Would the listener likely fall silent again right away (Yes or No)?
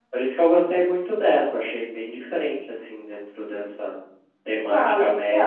No